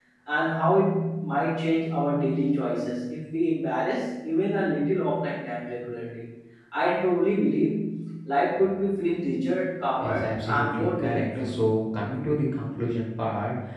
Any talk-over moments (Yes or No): Yes